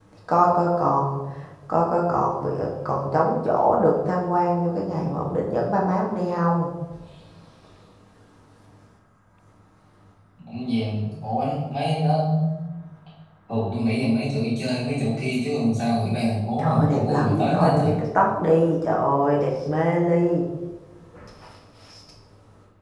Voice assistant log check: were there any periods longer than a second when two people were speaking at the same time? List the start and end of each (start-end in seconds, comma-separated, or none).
16.6-17.9